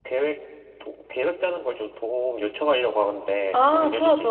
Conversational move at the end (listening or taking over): taking over